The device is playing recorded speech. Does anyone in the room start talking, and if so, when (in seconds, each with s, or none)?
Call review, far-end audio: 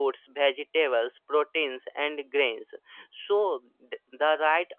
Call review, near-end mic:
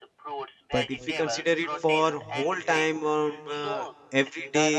0.7 s